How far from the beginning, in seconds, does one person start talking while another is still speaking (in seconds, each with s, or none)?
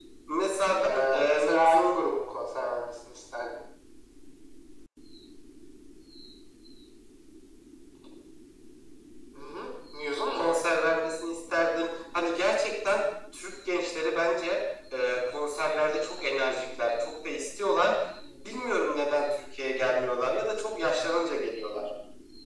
0.7 s